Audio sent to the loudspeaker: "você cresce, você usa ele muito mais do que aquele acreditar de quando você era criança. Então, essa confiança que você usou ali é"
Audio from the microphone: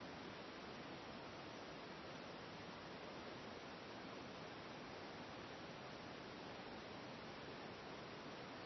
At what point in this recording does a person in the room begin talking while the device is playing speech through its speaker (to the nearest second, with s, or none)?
none